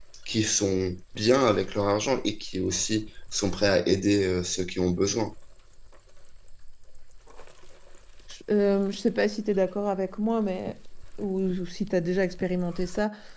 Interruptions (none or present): none